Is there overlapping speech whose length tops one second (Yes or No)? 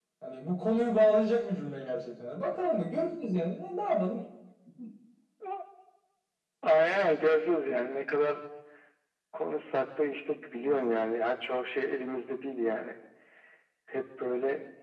No